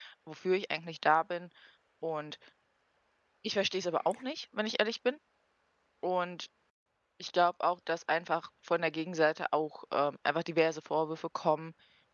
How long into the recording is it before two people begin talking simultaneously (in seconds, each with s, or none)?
none